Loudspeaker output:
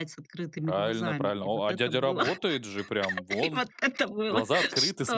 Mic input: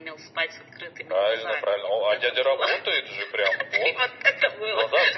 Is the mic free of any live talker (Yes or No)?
Yes